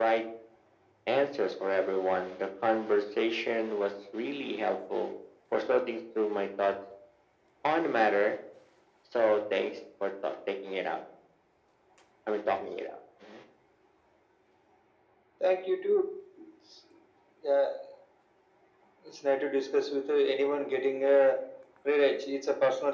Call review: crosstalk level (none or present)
none